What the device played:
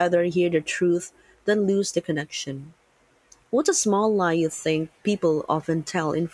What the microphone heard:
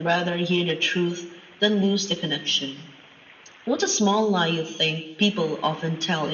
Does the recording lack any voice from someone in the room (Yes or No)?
Yes